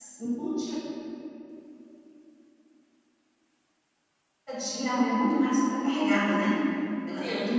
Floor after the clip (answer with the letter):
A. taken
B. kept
B